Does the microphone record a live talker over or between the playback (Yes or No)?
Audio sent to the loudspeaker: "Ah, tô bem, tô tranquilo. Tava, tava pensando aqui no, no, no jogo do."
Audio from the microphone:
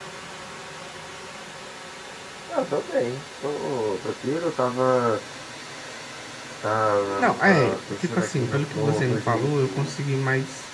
Yes